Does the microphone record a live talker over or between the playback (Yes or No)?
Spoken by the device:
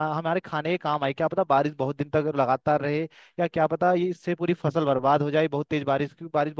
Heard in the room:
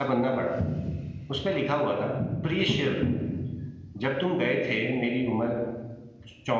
Yes